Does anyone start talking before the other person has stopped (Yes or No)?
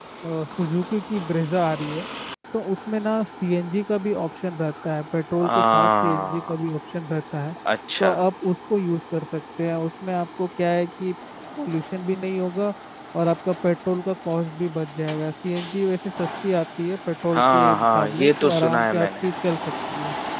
Yes